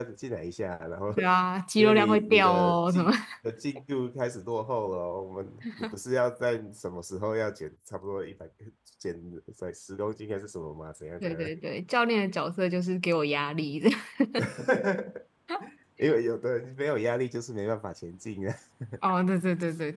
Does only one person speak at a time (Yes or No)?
No